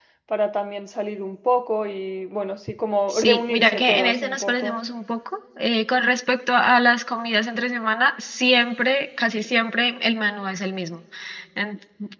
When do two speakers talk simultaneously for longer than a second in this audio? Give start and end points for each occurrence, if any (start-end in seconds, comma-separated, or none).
3.1-4.8